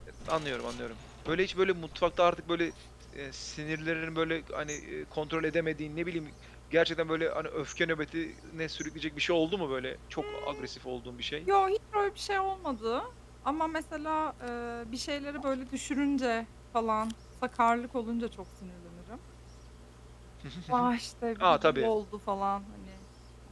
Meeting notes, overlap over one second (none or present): none